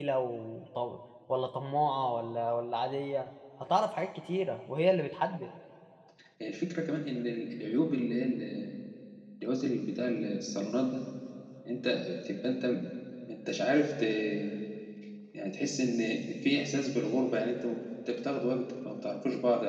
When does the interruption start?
none

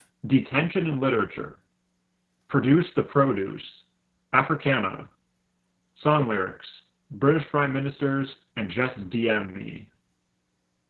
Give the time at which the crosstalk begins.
none

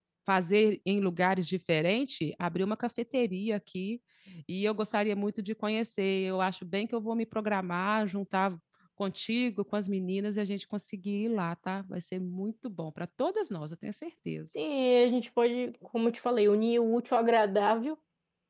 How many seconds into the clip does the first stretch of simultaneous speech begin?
none

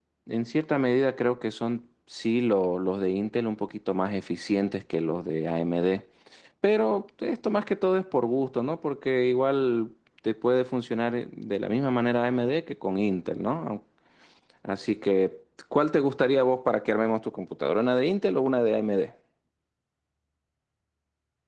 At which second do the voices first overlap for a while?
none

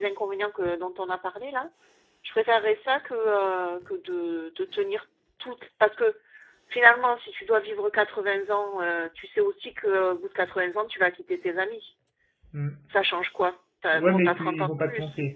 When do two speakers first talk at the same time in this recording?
13.9 s

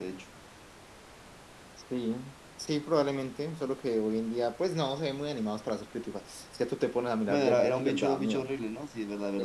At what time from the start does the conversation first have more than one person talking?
7.3 s

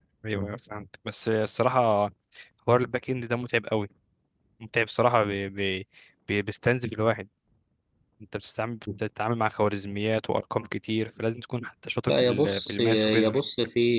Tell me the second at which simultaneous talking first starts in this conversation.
12.1 s

